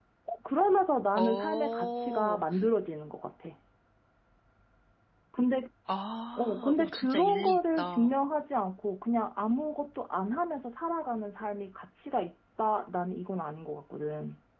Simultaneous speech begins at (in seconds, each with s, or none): 1.2 s